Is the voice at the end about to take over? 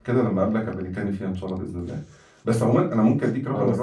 No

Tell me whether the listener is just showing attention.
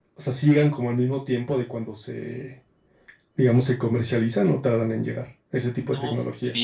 No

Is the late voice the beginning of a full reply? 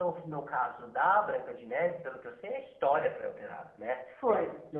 No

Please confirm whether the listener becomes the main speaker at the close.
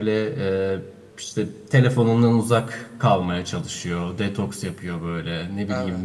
No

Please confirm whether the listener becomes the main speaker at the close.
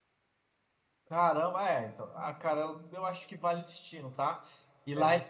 No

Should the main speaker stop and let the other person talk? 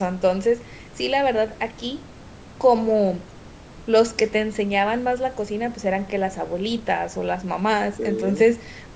No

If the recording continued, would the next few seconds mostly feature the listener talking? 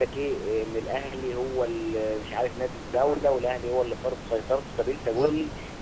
No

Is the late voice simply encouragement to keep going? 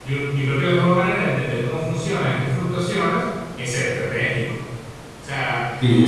No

